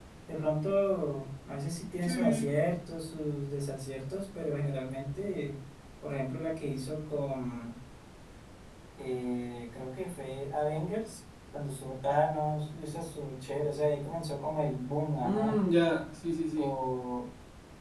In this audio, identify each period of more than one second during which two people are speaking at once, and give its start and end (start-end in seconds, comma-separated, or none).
none